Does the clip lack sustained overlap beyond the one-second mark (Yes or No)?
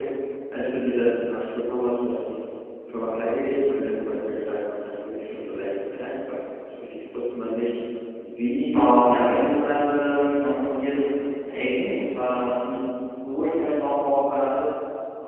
No